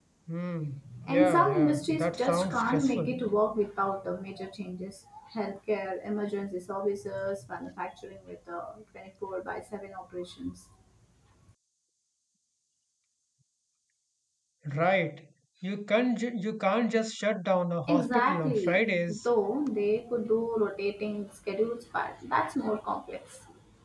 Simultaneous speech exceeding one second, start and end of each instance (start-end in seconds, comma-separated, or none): 1.1-3.2, 17.9-19.2